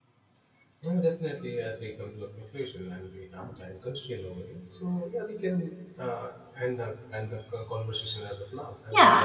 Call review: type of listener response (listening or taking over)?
taking over